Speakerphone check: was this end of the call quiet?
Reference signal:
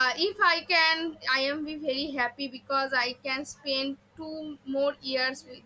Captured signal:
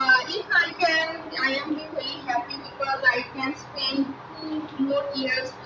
Yes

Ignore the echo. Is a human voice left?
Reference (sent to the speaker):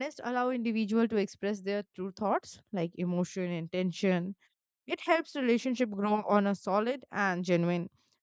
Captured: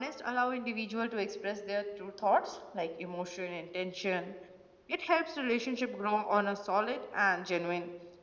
No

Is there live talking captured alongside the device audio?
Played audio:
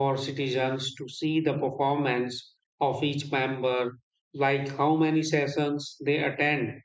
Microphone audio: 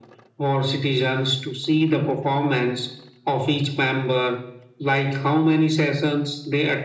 No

